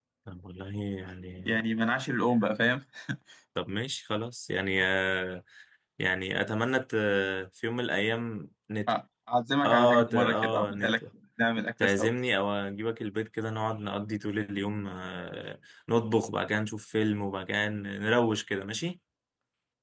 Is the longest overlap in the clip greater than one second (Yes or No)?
Yes